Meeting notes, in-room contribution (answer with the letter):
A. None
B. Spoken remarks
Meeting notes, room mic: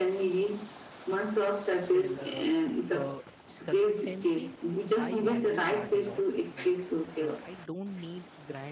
B